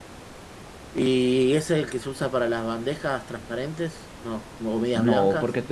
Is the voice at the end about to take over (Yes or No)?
Yes